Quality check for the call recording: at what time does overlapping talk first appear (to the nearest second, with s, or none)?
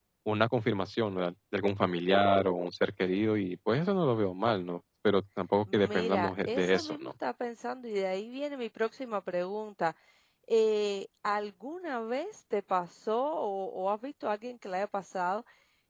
6 s